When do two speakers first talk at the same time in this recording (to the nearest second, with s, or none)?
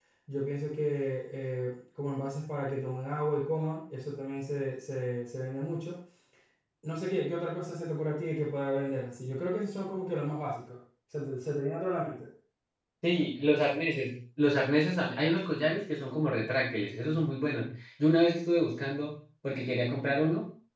none